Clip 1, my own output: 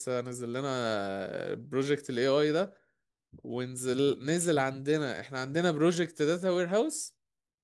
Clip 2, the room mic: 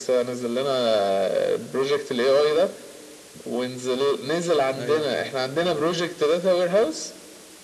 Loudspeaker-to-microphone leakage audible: Yes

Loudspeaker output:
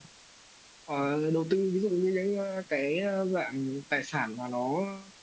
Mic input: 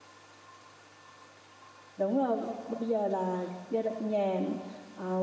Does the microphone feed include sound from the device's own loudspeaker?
No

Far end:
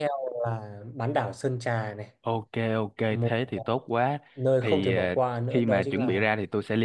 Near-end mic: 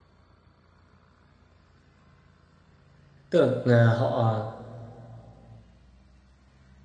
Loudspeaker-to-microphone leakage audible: No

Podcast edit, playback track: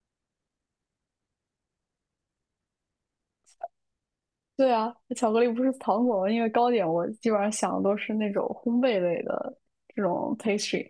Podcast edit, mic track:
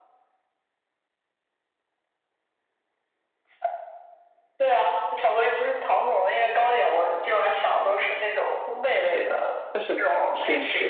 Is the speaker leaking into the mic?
Yes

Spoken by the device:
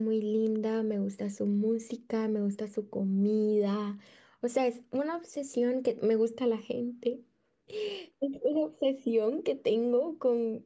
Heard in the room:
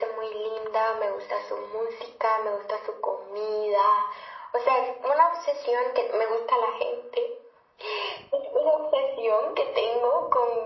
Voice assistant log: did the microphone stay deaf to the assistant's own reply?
No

